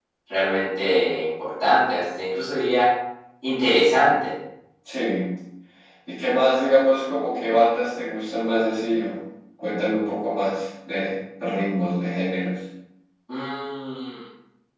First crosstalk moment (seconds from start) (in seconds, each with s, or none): none